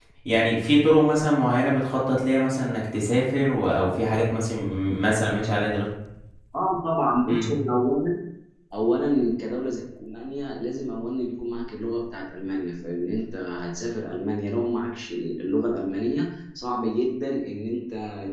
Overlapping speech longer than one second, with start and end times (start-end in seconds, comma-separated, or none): none